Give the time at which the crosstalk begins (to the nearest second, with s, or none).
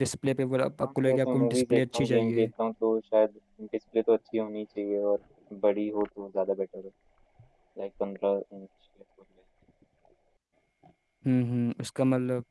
1 s